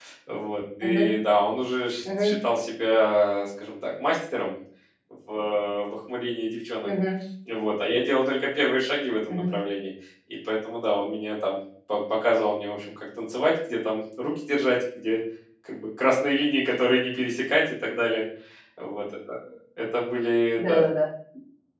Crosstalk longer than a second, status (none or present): none